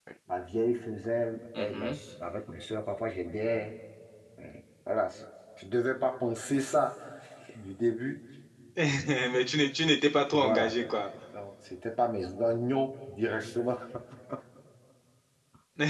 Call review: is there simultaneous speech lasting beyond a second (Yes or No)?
No